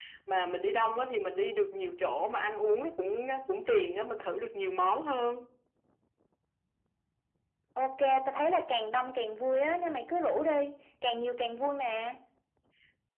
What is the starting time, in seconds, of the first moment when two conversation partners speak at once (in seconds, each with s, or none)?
none